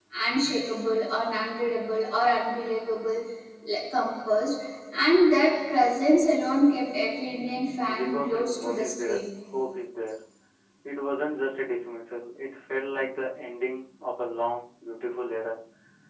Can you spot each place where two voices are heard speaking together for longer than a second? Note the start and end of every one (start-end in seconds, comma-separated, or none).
8.0-9.2